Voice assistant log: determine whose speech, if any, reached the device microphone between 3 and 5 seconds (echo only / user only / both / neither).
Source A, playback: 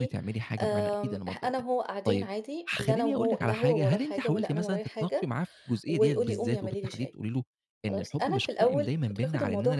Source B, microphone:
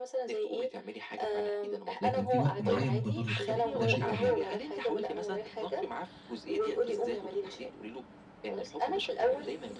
both